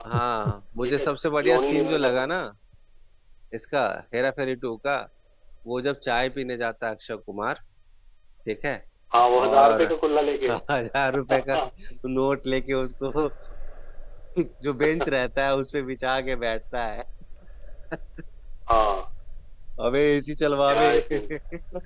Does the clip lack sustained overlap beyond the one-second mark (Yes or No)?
No